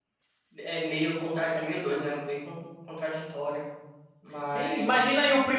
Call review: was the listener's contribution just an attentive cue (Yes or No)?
No